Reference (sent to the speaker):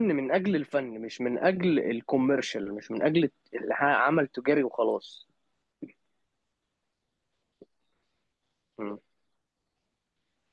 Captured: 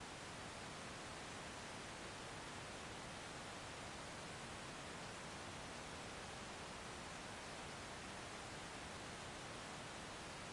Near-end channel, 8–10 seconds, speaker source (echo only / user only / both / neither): neither